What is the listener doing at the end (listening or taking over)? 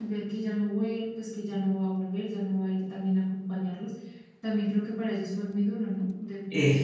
taking over